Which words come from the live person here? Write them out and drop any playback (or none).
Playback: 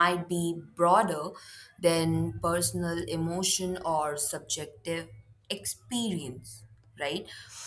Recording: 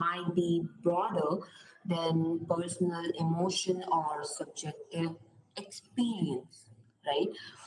none